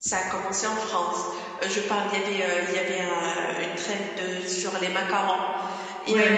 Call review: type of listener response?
listening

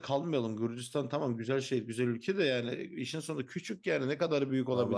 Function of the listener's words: taking over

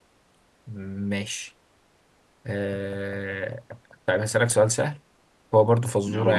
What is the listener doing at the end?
listening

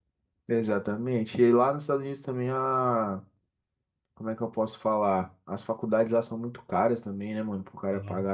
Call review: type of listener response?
listening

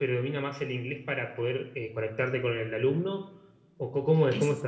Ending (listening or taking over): taking over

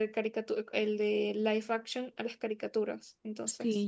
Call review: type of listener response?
taking over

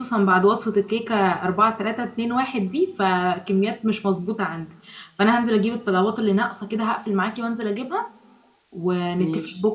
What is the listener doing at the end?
listening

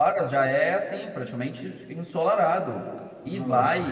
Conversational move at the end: listening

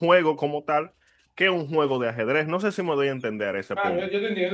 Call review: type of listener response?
taking over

